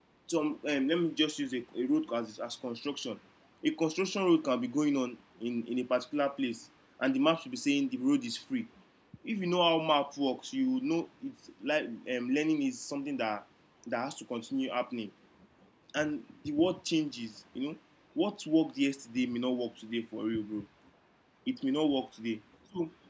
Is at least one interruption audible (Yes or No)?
No